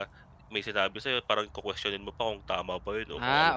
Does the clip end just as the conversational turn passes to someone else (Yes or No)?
Yes